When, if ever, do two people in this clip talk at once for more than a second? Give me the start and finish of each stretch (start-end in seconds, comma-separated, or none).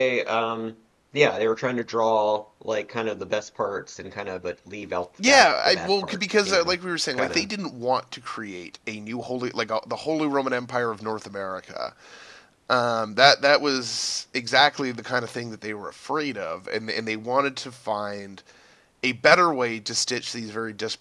5.3-6.7